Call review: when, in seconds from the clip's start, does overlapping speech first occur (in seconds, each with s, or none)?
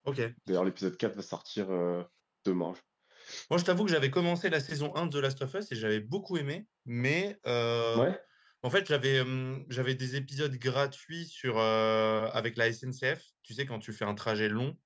none